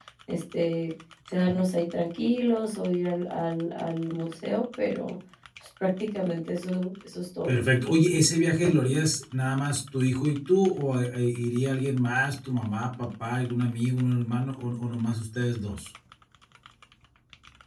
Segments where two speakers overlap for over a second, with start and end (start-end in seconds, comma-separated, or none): none